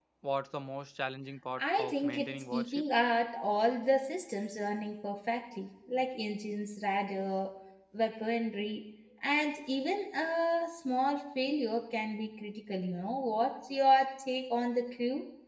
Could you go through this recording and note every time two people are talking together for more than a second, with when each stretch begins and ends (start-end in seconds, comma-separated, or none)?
1.6-2.8